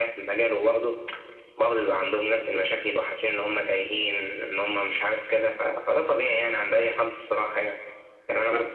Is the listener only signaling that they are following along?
Yes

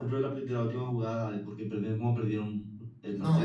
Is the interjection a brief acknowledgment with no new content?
No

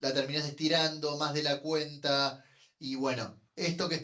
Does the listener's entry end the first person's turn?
No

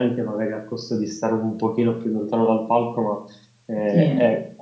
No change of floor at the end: Yes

